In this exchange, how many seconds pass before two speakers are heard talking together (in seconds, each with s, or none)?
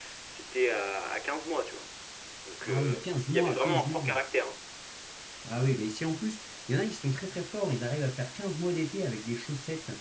2.7 s